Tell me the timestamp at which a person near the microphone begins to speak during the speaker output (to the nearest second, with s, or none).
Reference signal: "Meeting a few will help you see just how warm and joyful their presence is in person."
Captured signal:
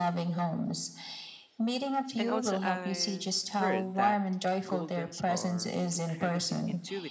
2 s